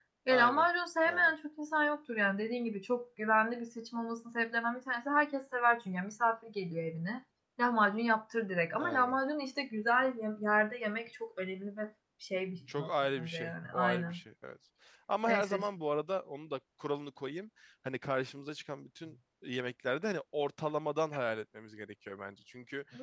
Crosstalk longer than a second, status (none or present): present